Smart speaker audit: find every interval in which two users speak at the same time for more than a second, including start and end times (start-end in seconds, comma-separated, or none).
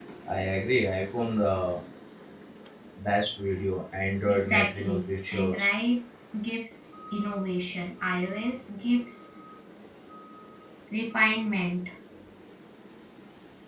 4.3-5.7